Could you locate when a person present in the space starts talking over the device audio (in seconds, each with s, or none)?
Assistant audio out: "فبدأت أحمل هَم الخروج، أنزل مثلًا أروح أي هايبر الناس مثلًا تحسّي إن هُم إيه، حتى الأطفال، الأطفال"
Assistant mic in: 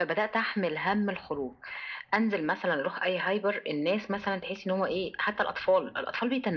none